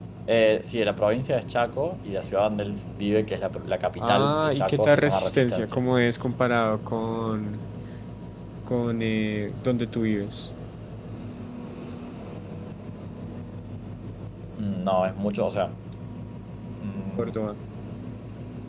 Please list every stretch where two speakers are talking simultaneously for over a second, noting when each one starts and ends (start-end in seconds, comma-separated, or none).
4.0-5.8